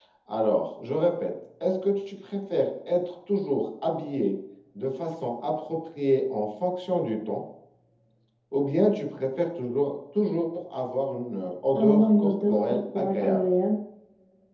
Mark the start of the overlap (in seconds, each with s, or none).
11.8 s